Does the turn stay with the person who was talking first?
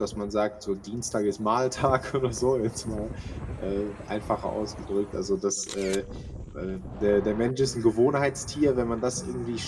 Yes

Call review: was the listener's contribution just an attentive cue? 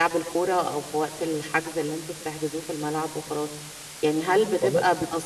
Yes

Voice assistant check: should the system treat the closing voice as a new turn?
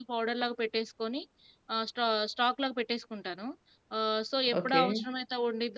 No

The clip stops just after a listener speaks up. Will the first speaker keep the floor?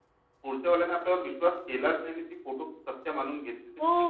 No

